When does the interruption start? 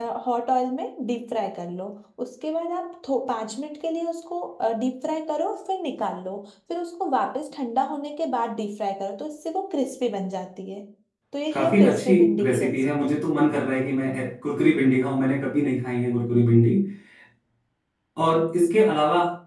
11.5 s

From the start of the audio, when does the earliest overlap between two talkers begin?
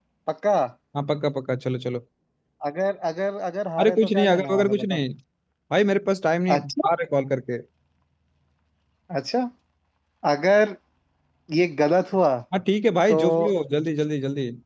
3.8 s

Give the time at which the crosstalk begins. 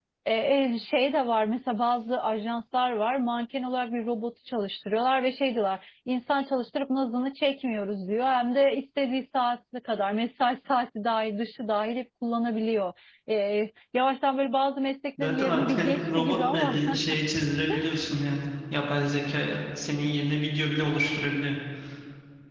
15.2 s

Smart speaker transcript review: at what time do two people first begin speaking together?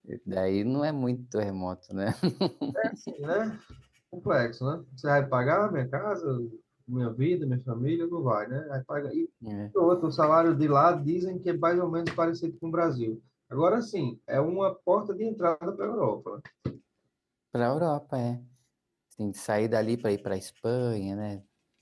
none

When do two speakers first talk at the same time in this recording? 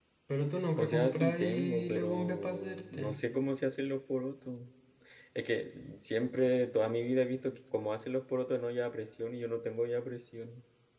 0.8 s

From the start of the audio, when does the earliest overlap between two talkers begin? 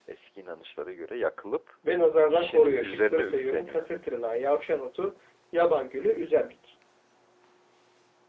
2.3 s

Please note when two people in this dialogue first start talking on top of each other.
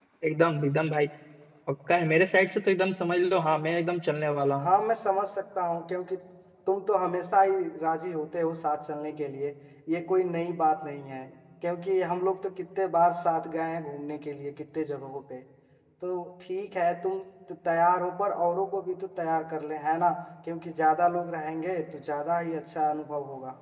none

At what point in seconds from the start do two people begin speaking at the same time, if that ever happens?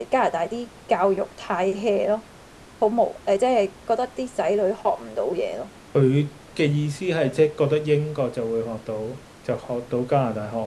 none

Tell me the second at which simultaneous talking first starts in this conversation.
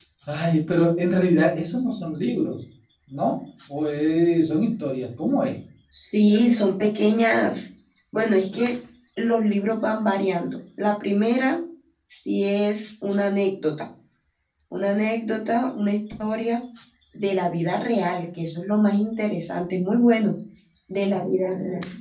none

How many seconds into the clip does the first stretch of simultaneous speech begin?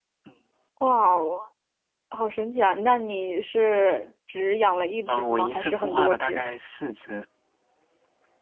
5.1 s

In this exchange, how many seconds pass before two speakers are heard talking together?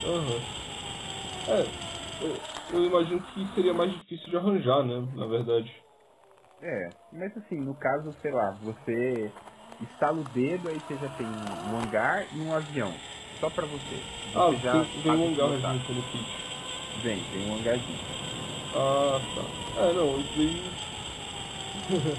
14.3 s

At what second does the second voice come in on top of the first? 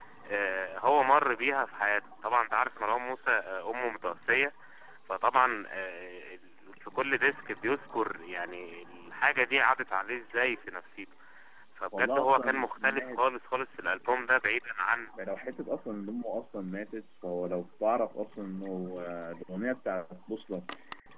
11.9 s

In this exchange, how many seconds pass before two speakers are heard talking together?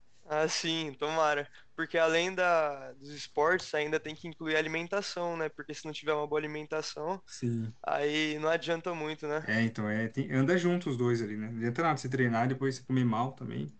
none

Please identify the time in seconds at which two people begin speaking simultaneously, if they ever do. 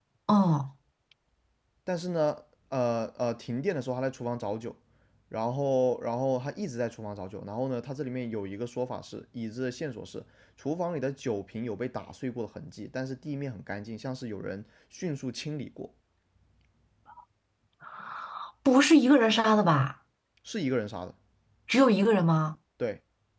none

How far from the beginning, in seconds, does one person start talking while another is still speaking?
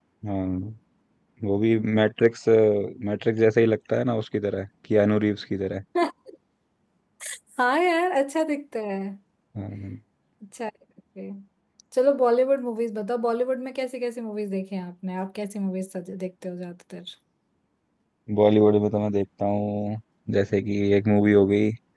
none

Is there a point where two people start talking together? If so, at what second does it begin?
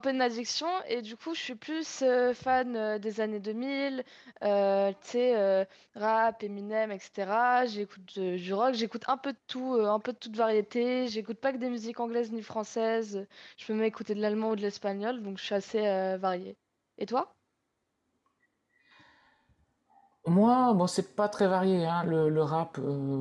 none

